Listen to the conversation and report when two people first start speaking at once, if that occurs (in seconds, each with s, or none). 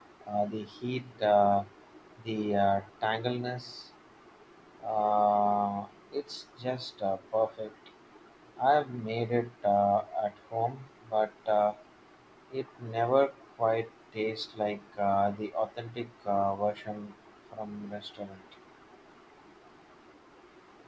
none